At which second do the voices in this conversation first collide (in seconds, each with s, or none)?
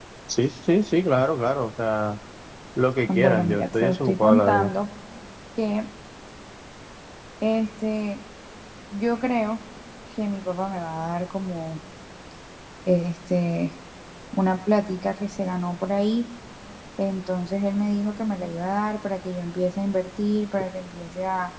3.1 s